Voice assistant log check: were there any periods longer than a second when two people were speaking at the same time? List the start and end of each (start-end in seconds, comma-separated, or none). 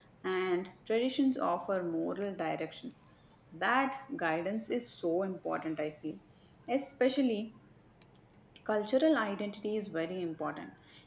none